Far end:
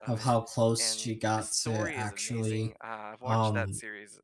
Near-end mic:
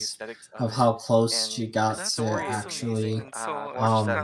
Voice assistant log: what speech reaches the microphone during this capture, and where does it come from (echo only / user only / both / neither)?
both